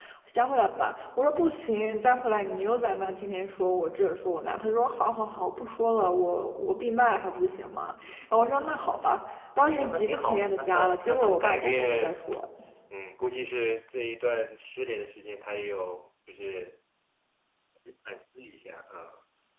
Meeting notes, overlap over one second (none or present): present